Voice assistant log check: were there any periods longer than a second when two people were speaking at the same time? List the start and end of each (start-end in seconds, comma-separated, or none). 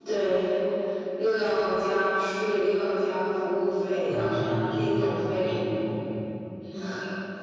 4.1-5.5